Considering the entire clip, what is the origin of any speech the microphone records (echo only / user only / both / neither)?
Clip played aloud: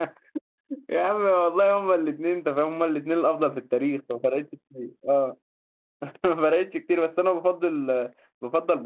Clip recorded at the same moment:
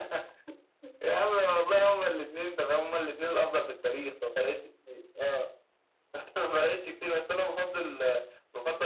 echo only